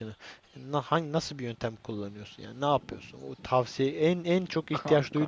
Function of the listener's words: listening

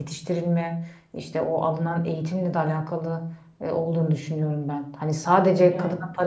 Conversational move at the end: listening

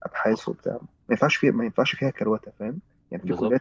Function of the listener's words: listening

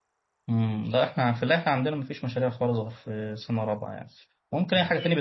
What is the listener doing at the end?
listening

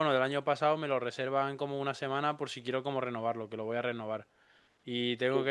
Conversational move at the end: listening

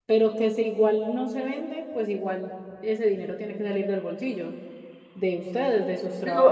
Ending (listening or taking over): taking over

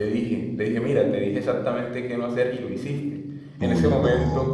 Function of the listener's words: listening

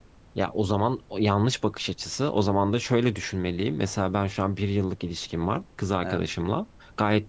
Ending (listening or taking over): listening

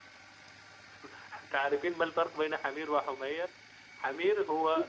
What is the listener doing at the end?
listening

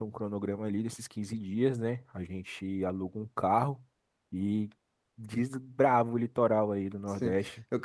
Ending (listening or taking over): taking over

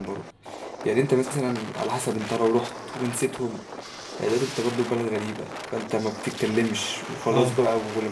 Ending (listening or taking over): listening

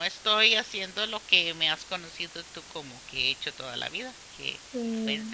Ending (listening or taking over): taking over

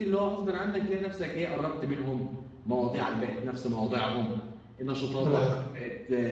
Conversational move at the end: listening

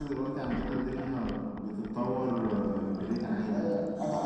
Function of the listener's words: taking over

